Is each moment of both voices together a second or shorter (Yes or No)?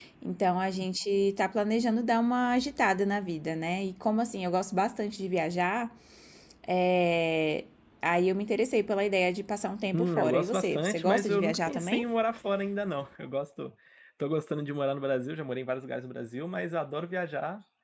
No